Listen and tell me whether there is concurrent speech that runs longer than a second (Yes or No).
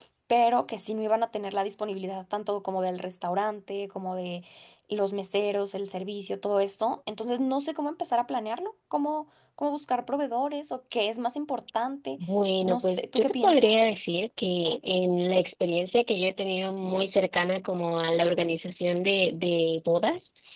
Yes